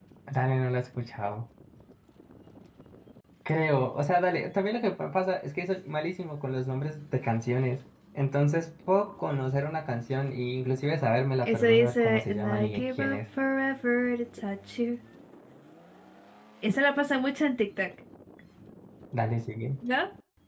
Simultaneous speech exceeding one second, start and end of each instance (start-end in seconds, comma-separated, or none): 11.4-13.2